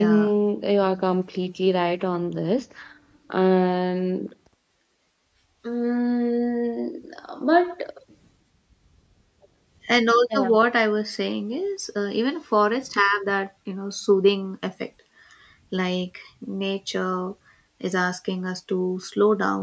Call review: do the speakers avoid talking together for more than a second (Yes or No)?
Yes